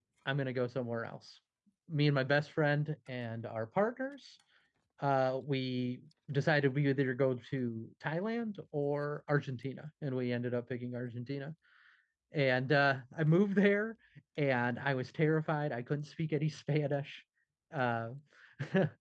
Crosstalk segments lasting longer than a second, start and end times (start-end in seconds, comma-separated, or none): none